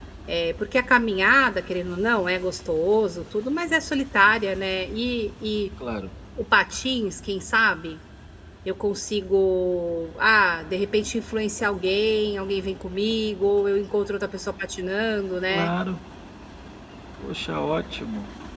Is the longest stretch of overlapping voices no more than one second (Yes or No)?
Yes